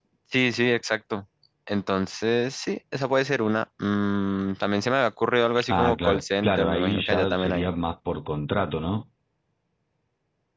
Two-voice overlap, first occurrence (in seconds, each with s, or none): 5.5 s